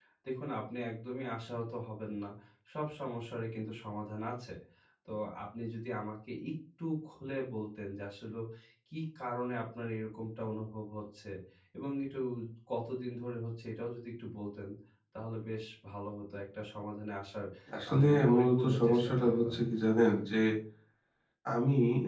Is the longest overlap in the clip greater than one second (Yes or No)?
Yes